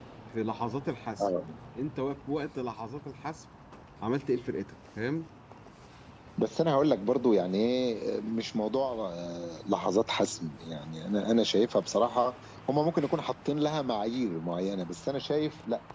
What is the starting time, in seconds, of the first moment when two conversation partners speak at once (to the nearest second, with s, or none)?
none